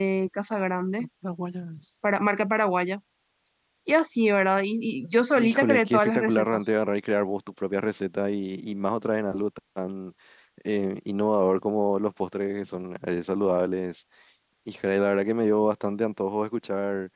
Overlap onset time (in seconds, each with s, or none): 5.4 s